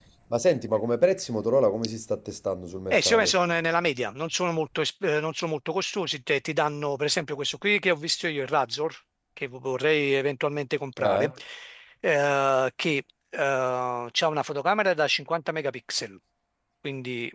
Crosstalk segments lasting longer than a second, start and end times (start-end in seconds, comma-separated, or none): none